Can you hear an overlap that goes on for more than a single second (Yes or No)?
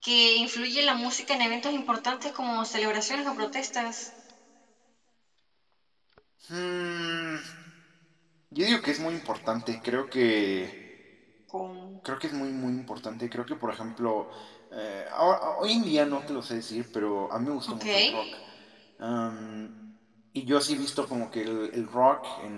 No